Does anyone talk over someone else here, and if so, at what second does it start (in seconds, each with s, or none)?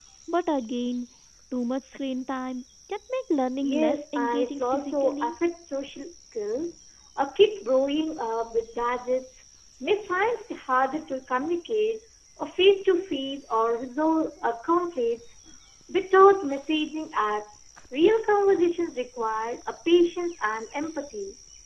3.6 s